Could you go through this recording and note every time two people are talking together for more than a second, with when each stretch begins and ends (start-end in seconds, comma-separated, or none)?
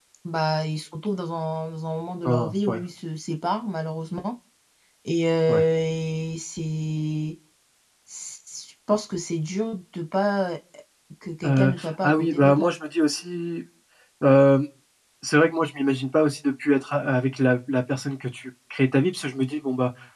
11.4-12.7